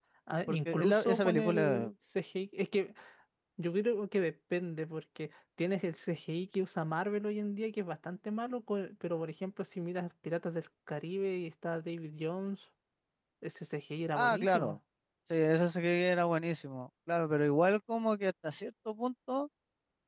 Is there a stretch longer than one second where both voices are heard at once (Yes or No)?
Yes